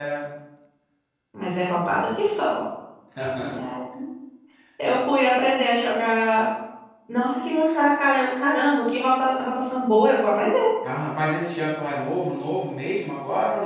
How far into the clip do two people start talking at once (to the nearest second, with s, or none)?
none